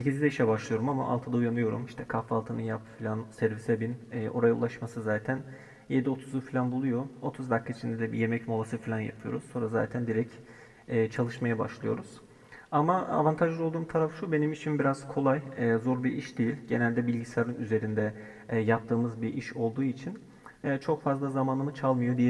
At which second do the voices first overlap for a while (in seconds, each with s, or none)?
none